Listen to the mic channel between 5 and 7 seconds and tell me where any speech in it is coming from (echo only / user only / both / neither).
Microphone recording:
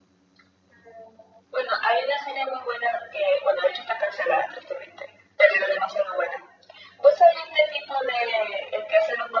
echo only